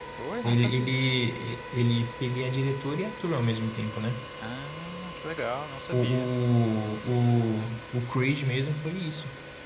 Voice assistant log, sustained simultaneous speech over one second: none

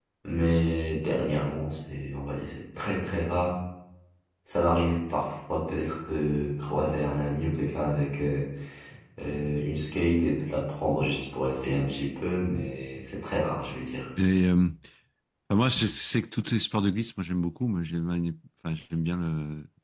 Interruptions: none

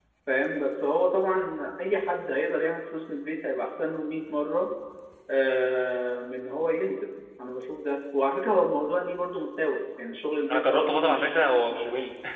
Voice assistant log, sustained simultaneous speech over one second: present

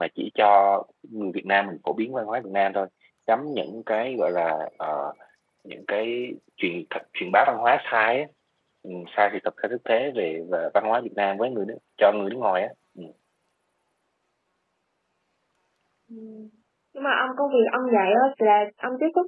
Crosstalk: none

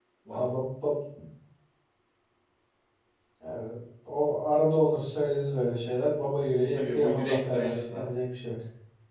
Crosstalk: present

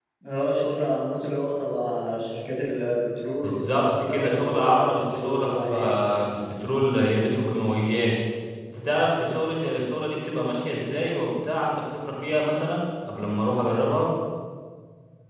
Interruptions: present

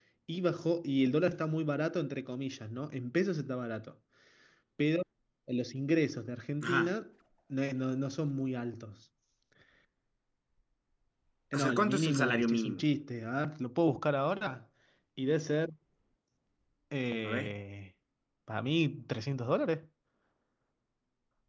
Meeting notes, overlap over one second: present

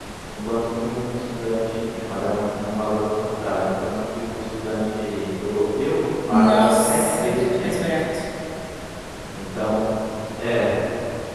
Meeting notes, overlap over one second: present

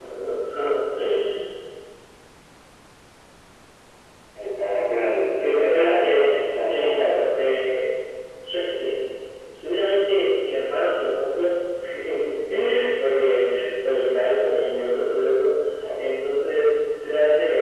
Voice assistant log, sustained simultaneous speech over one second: present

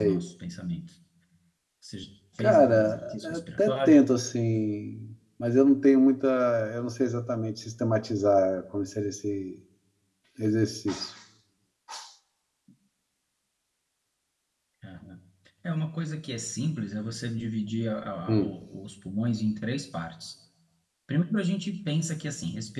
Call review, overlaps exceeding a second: present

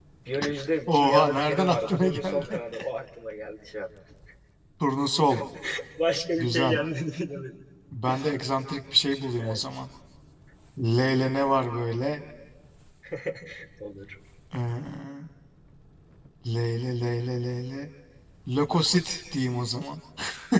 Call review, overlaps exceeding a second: present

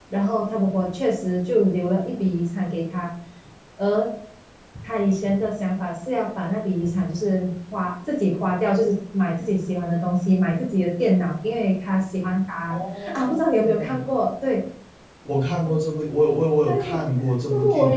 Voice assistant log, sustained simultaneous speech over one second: present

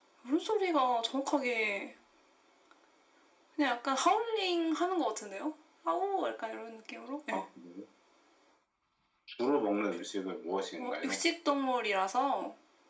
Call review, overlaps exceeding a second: none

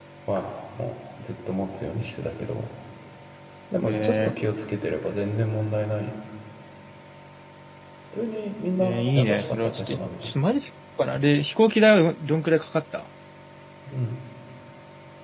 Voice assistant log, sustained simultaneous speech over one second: present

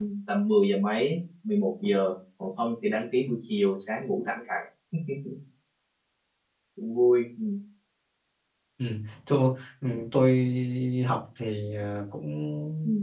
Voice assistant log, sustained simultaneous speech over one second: none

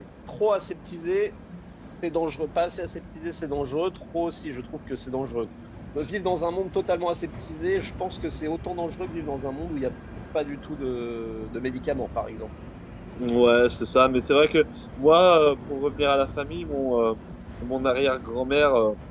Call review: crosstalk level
none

